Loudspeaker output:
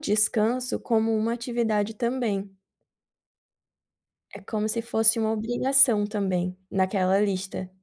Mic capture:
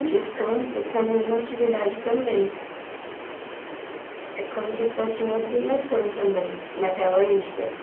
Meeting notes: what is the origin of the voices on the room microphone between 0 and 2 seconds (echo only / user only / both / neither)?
echo only